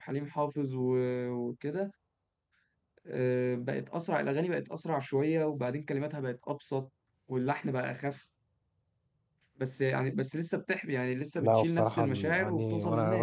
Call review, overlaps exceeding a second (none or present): present